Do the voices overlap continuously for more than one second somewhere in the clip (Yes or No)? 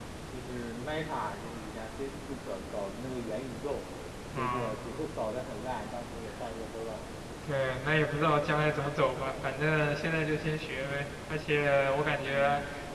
No